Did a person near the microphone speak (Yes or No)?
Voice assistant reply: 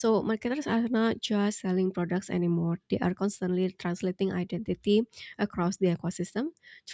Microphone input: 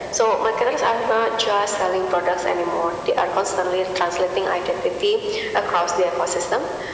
No